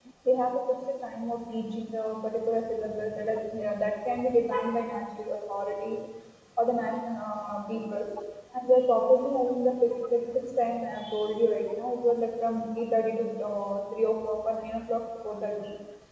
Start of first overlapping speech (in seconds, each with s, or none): none